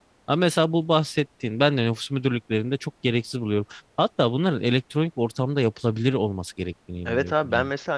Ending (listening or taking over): taking over